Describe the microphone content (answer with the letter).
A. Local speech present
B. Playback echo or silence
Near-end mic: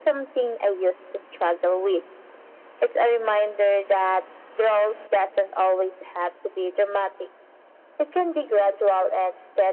B